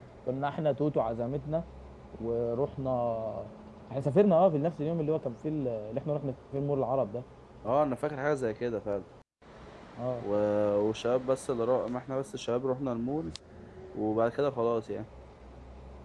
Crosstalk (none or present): none